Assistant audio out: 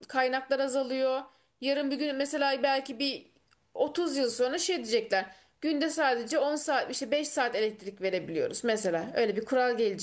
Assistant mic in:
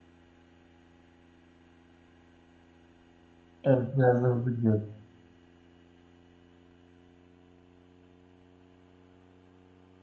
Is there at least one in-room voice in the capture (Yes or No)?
Yes